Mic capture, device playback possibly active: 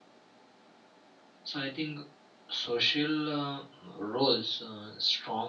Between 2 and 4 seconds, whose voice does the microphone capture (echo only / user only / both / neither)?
user only